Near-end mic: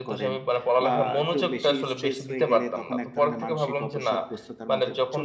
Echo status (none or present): present